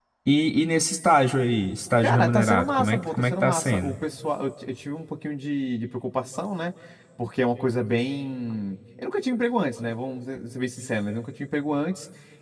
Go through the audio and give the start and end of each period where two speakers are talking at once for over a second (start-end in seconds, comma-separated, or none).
2.0-3.9